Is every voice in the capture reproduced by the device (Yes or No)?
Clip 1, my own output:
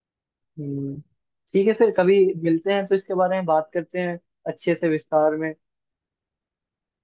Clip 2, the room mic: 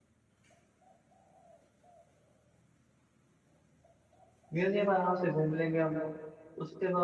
No